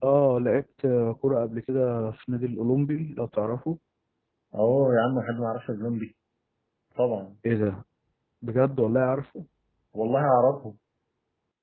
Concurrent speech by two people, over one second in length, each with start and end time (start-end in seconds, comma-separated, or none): none